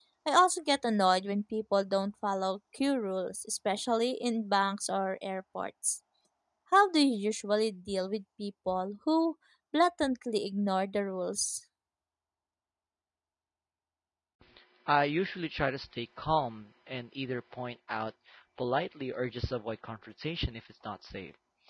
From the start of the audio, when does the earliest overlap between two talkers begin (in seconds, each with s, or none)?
none